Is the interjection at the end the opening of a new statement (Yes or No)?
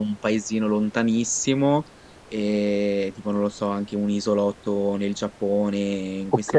No